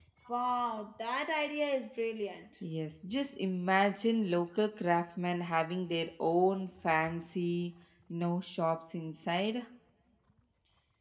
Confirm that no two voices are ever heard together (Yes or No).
Yes